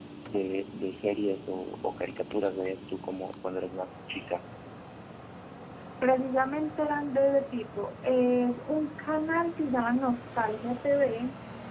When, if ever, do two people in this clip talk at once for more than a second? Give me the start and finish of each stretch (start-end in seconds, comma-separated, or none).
none